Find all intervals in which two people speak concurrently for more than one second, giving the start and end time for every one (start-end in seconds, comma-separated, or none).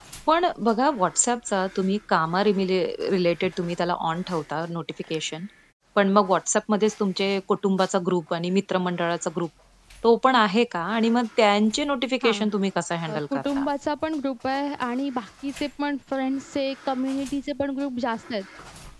none